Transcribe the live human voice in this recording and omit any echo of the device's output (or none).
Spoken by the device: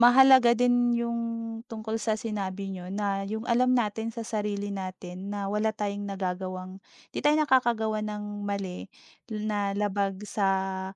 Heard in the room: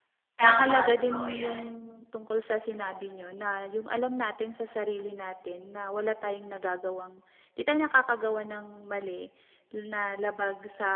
Tama, totoo yan.